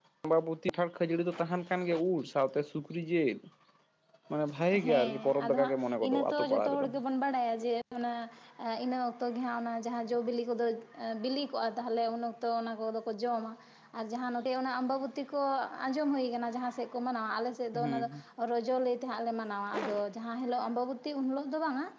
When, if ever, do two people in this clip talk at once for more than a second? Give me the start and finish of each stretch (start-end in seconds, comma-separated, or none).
4.8-6.9